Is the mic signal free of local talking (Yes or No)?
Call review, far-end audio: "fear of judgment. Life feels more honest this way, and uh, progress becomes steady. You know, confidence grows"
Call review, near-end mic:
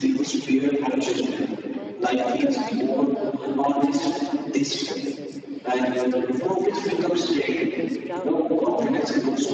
No